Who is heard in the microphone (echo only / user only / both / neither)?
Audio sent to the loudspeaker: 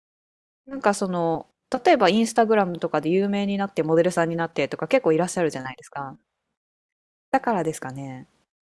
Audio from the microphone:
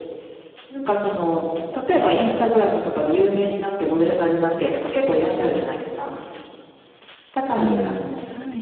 both